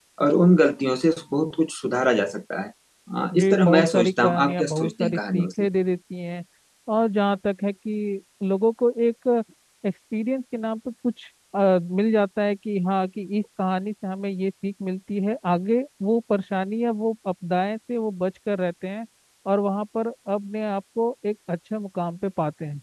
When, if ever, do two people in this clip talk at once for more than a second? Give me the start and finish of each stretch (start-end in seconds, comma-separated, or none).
3.3-5.5